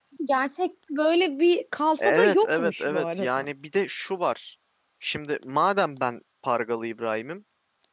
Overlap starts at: 2.0 s

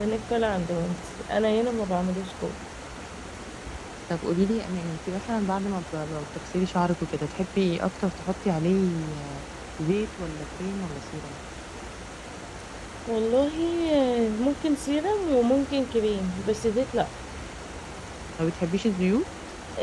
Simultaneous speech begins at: none

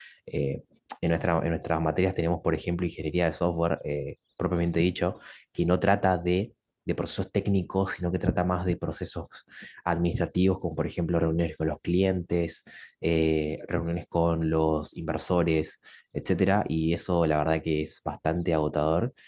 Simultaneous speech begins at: none

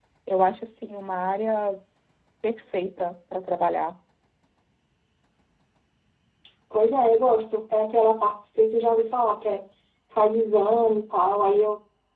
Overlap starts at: none

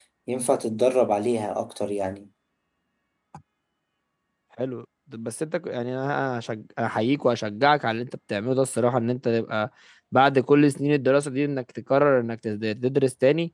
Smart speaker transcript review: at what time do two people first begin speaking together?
none

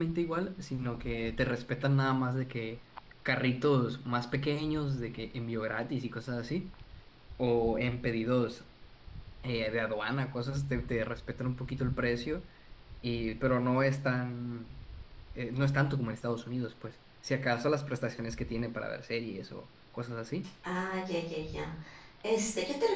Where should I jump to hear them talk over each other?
none

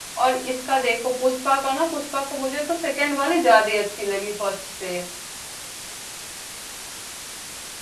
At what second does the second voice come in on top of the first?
none

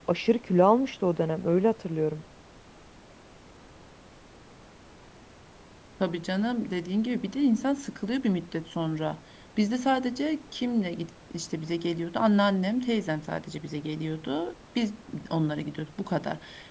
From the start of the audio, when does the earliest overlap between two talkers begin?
none

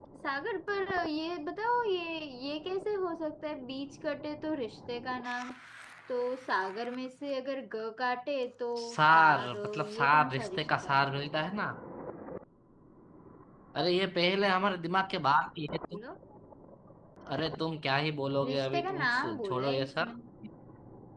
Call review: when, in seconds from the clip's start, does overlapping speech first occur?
8.8 s

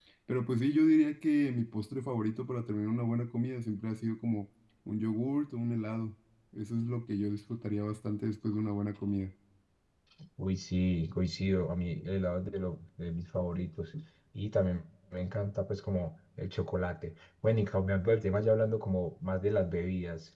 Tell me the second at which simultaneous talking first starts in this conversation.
none

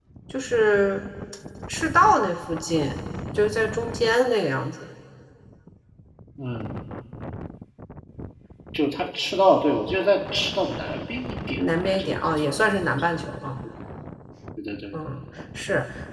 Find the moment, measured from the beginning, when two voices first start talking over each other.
11.6 s

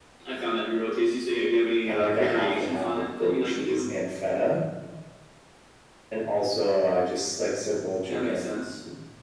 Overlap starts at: 1.8 s

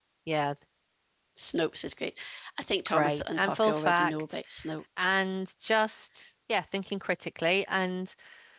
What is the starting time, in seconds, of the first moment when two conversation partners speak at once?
2.9 s

